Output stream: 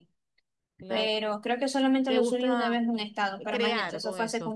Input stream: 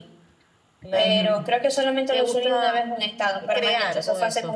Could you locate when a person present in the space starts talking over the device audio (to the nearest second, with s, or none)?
1 s